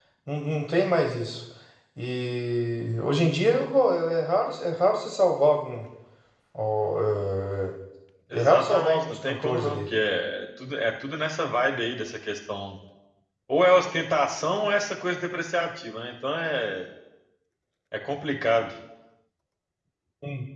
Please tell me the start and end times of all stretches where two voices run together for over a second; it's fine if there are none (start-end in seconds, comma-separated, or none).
8.3-9.8